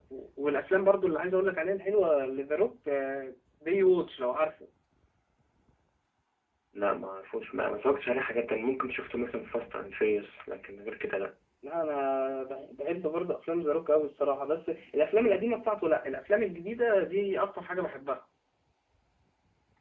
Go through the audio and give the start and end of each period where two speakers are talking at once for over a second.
none

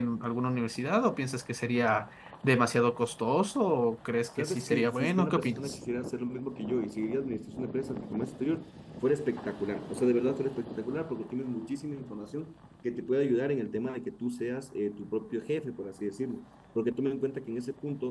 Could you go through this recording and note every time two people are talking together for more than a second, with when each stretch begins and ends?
4.4-5.8

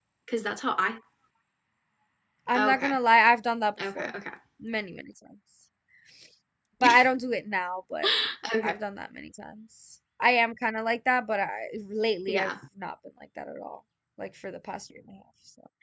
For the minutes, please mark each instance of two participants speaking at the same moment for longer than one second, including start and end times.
none

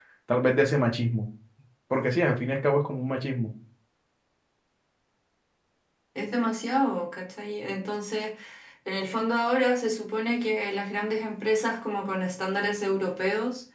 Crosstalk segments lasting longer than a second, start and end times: none

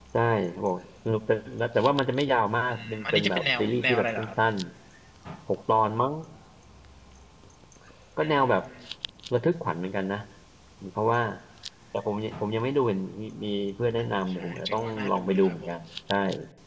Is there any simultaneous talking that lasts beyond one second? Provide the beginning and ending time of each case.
2.7-4.3, 14.0-15.6

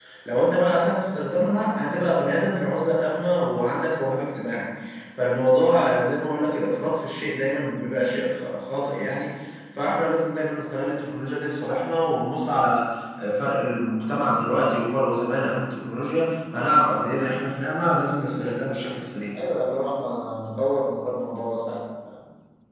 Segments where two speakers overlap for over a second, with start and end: none

